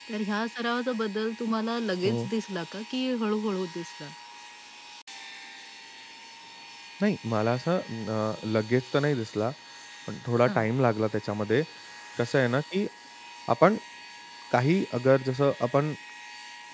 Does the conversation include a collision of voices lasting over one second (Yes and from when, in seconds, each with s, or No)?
No